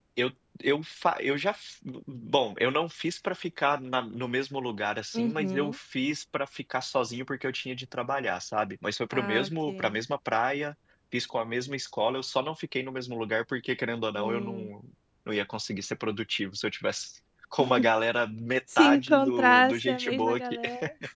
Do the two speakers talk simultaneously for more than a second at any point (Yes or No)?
Yes